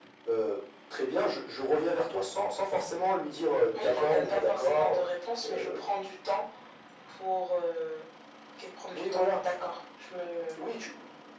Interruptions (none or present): present